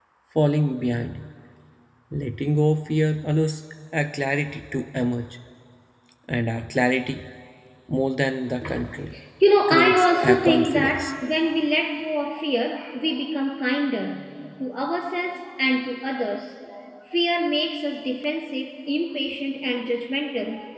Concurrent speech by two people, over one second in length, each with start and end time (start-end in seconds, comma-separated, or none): 9.7-11.1